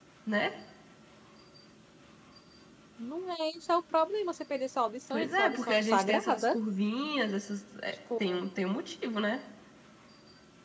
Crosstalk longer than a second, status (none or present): present